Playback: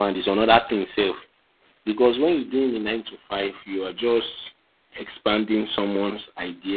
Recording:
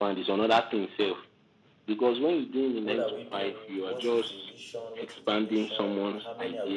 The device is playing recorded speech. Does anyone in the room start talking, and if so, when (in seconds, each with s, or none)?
2.8 s